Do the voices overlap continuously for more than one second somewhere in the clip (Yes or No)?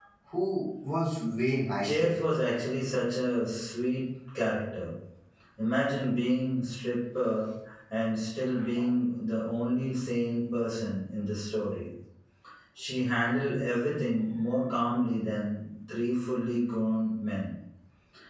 No